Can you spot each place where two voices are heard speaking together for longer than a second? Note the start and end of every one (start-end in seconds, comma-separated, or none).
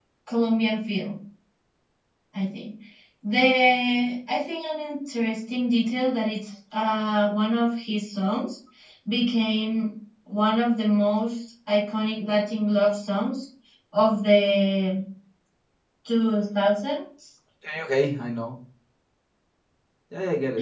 none